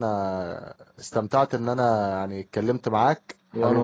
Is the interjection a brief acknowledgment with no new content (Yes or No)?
No